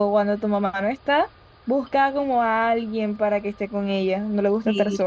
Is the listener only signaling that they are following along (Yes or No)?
No